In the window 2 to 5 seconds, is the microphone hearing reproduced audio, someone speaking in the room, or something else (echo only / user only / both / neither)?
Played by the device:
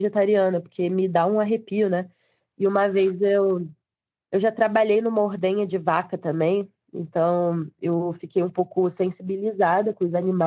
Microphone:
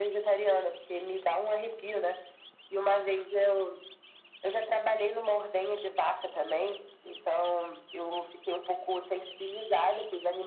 echo only